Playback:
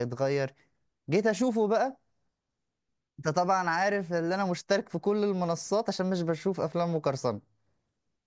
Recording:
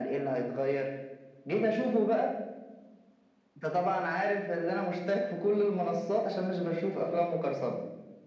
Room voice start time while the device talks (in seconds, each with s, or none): none